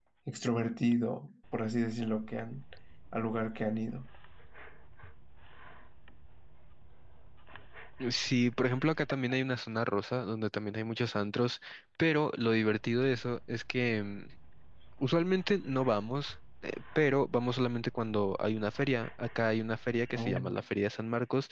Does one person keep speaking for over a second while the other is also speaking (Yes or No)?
No